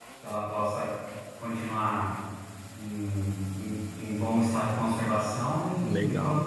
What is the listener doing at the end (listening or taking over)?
taking over